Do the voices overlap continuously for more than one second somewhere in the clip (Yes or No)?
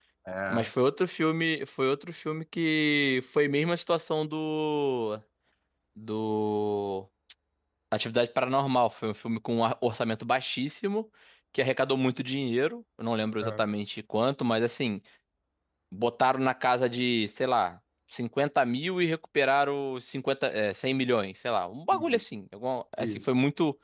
No